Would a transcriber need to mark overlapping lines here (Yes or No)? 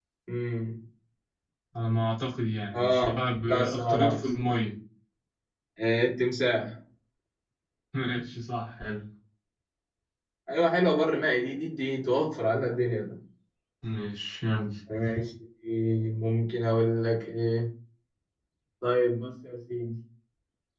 Yes